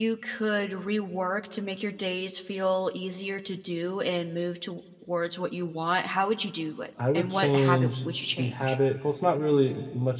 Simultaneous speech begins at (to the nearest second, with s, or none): 7 s